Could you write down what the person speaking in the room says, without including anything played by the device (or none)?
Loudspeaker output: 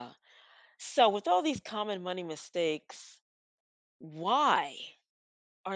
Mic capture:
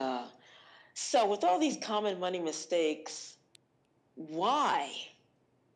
none